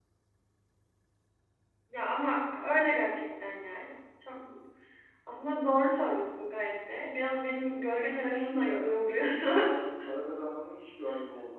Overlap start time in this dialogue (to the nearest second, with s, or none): 8 s